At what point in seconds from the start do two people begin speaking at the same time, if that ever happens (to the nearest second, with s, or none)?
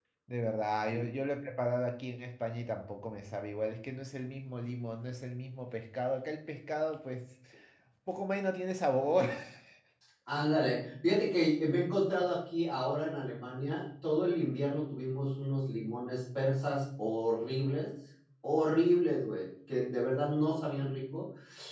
none